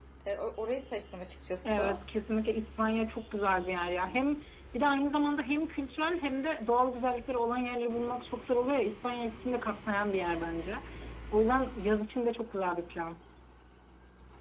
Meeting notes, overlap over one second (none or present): none